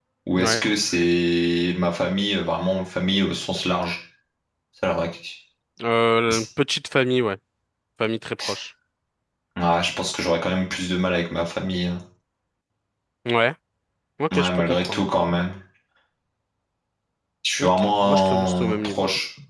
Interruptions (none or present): present